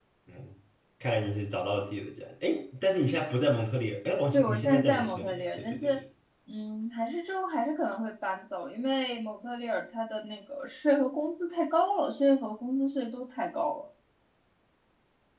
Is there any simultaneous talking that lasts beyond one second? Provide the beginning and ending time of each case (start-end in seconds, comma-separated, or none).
4.3-6.0